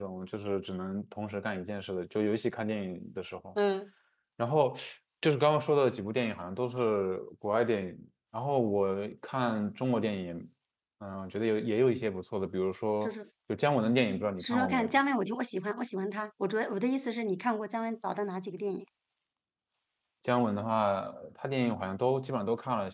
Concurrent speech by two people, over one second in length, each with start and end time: none

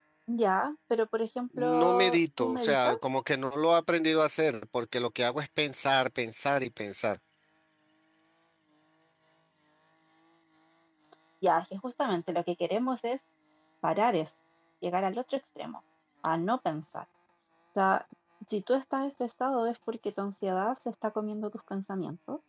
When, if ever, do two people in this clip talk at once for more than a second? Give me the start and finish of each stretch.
1.6-2.9

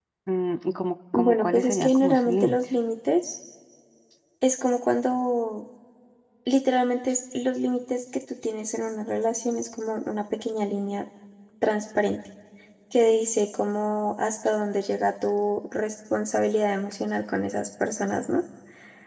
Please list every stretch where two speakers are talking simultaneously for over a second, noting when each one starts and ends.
1.1-2.6

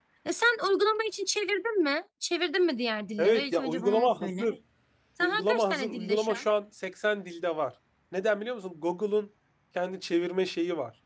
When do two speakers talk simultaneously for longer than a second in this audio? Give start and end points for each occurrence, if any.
3.2-4.5, 5.2-6.5

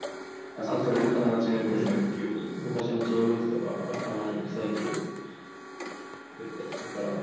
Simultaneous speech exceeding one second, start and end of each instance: 0.7-2.0

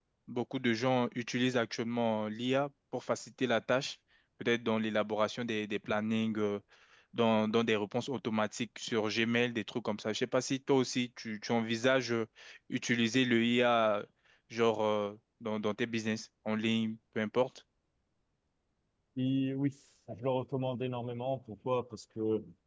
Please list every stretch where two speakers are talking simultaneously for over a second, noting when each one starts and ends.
none

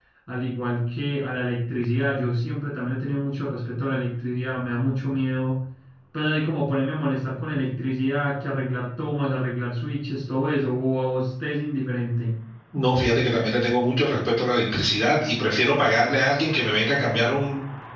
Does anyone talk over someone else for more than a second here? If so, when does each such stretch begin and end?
none

